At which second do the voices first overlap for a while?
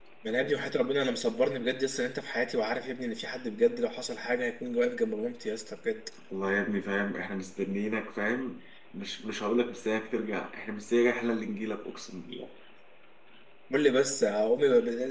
none

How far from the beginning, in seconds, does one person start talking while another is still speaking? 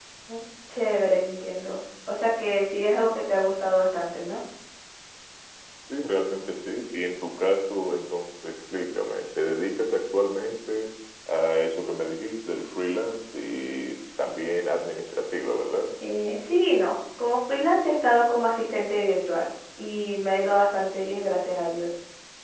none

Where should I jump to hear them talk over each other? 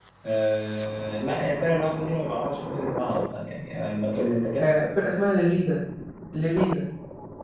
none

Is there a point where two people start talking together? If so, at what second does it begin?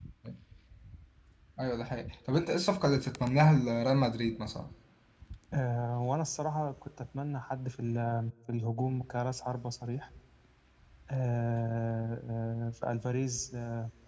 none

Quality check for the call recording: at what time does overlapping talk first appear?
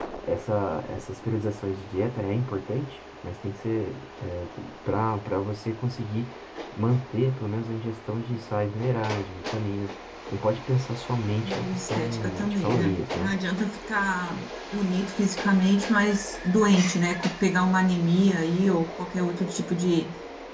11 s

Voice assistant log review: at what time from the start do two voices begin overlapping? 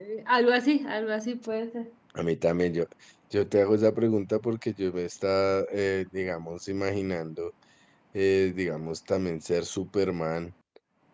none

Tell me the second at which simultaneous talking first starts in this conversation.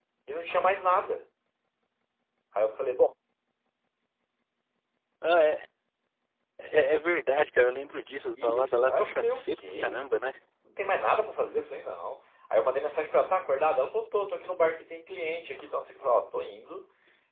8 s

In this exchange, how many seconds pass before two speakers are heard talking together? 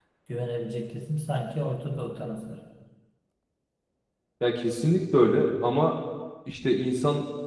none

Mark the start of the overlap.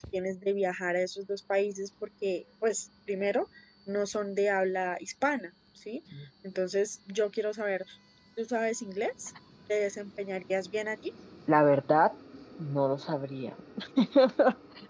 none

